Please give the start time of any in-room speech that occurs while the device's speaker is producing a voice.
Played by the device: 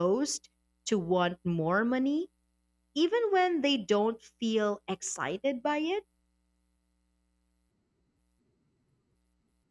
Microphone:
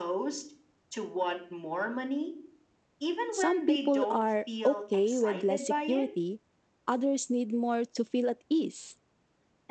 3 s

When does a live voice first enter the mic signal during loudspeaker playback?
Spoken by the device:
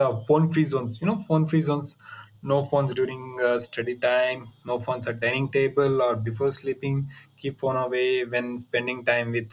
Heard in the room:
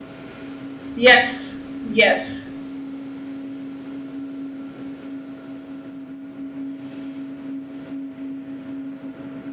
1 s

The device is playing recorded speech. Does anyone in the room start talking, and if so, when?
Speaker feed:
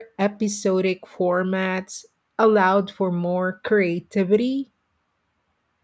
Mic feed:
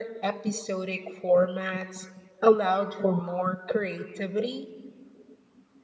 none

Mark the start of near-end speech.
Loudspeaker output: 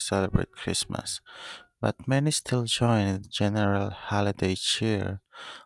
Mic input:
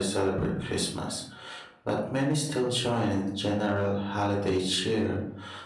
none

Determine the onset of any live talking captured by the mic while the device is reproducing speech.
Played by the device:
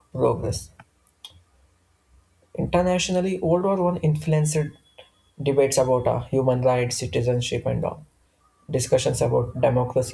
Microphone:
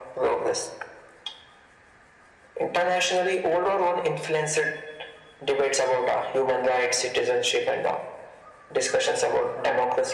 none

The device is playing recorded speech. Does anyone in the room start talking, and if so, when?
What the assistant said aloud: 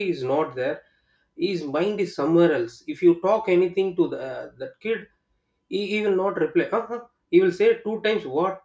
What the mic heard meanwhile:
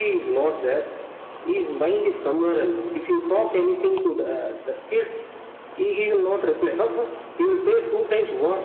none

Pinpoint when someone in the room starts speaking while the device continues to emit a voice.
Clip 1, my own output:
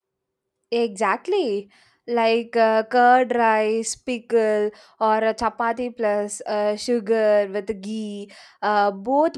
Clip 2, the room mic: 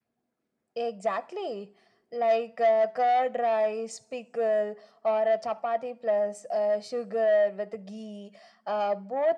none

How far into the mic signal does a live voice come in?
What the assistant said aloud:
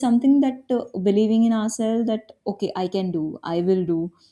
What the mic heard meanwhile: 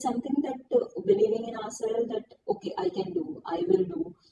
none

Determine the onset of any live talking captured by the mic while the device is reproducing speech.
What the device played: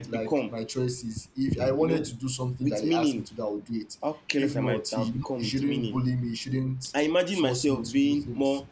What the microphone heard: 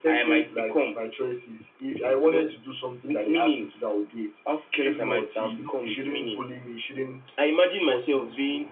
none

